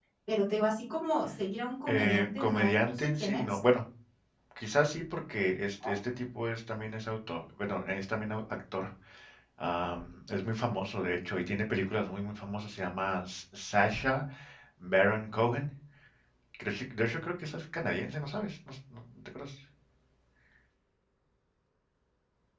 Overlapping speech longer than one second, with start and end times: 1.9-3.4

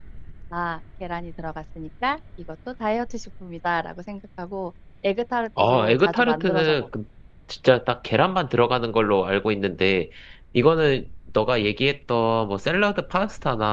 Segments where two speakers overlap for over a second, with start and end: 5.6-6.9

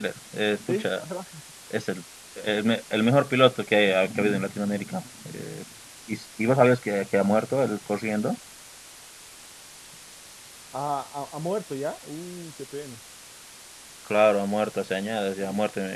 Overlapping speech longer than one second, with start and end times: none

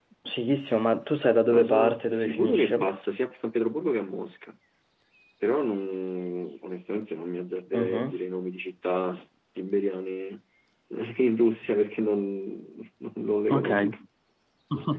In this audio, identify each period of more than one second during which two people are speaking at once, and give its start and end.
1.5-2.9

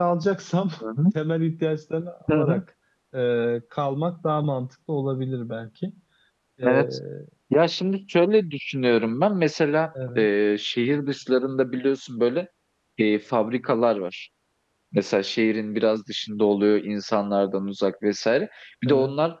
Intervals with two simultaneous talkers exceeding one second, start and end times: none

